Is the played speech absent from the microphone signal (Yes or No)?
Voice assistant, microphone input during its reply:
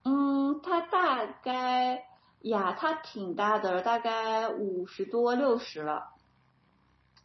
Yes